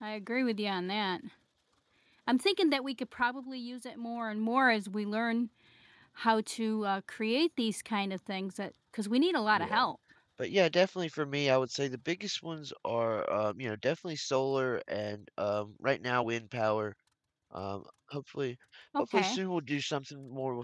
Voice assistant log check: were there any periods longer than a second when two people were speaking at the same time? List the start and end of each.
none

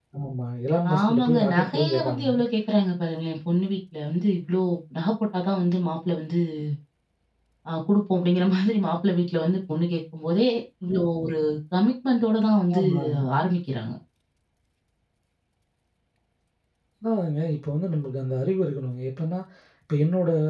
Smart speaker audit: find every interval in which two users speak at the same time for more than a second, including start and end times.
1.0-2.4

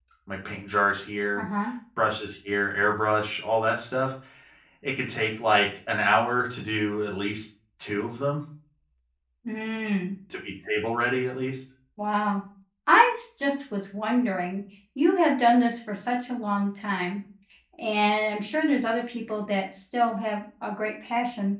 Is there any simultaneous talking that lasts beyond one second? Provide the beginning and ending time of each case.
none

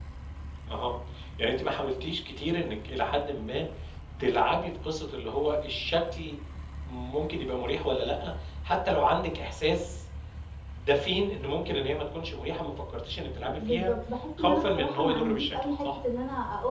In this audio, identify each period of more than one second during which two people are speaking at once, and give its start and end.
14.4-16.0

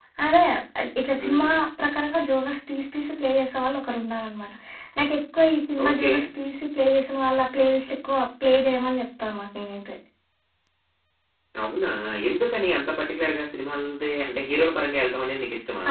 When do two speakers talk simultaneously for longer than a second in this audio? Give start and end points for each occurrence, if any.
none

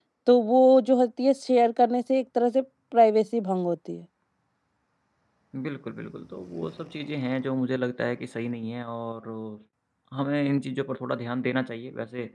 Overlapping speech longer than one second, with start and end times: none

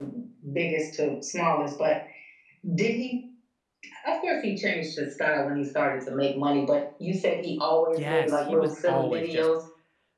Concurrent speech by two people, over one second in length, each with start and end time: 8.0-9.5

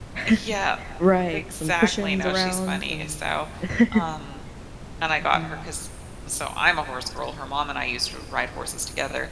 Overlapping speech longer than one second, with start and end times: 1.3-3.2

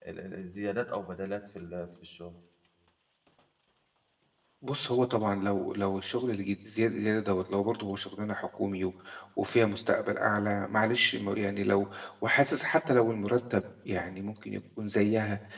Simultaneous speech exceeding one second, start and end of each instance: none

